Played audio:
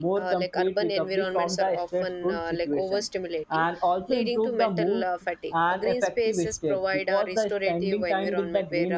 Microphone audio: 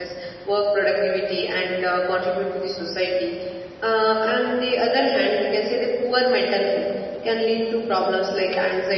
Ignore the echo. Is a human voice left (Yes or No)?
Yes